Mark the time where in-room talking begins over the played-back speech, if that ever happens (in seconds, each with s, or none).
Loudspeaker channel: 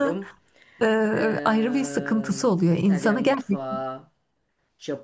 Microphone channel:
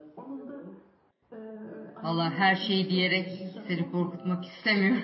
2.0 s